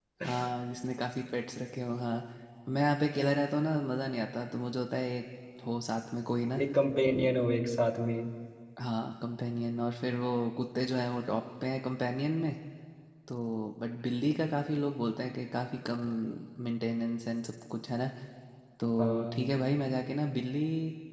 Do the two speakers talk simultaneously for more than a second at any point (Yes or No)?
No